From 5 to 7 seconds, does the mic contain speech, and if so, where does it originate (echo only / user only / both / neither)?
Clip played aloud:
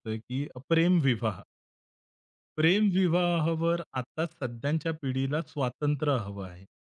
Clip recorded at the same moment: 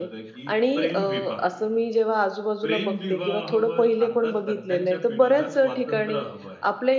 both